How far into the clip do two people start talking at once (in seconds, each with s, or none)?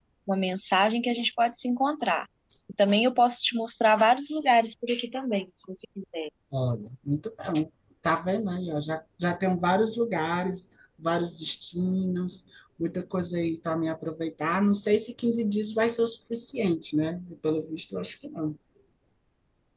none